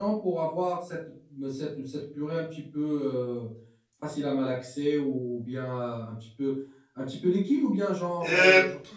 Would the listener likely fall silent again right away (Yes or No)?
No